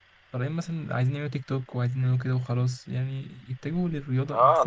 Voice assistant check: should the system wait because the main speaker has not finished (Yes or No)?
No